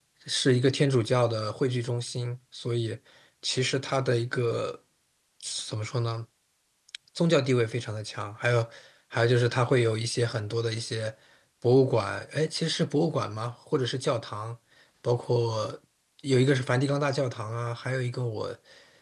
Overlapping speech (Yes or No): No